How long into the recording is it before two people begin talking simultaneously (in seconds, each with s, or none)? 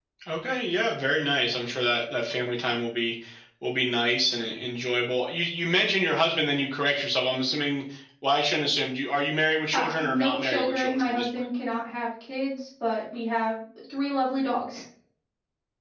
9.7 s